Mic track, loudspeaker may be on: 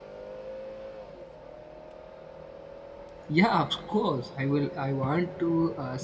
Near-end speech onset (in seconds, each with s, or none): 3.3 s